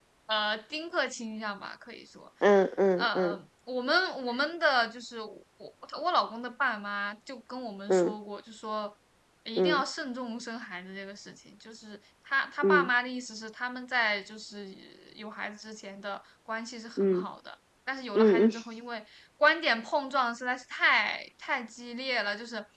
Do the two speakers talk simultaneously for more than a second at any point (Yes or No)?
No